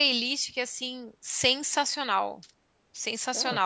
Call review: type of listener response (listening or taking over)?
taking over